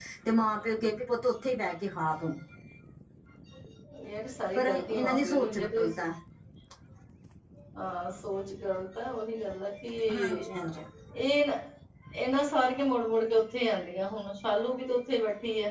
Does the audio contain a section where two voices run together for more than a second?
Yes, from 4.5 s

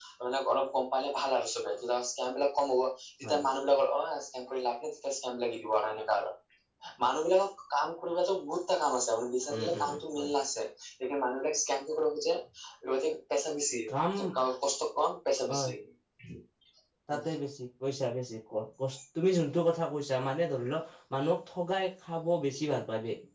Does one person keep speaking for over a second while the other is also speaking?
No

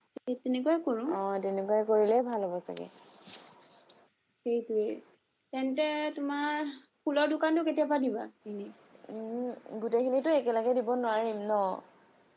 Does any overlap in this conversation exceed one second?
No

